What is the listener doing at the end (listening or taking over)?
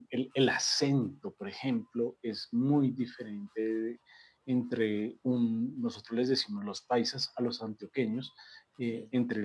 listening